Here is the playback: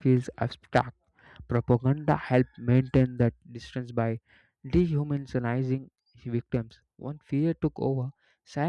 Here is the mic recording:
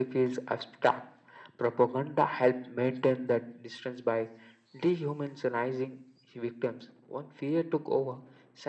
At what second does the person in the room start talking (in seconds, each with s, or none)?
none